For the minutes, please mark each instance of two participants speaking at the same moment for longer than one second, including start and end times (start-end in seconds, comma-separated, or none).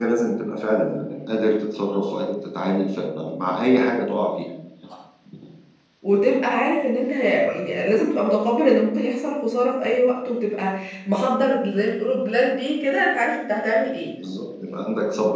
none